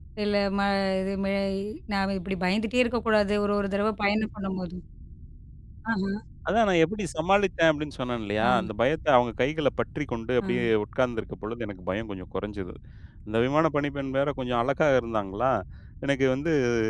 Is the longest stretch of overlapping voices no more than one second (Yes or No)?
Yes